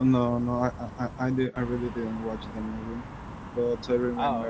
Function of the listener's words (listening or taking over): listening